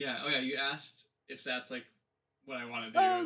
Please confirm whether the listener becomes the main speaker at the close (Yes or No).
Yes